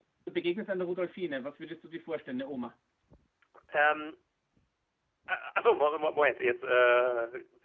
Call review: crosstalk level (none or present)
none